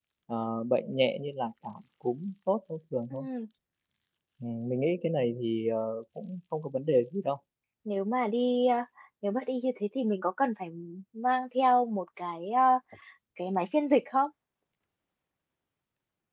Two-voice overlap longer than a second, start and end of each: none

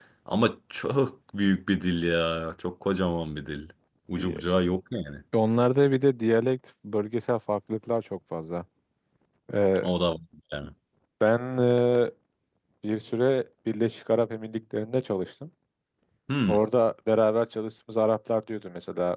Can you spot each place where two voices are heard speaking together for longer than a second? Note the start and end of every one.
none

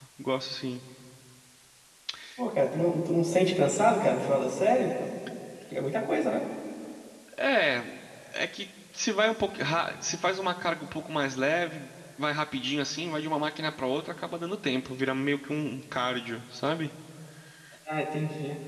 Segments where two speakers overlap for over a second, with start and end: none

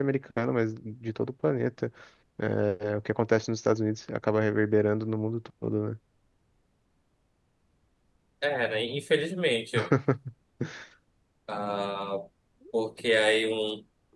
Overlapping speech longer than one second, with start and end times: none

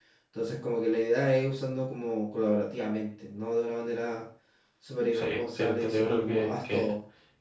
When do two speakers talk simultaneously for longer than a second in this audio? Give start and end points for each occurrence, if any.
5.1-6.9

